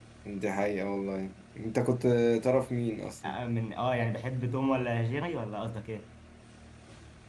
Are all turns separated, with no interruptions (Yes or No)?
Yes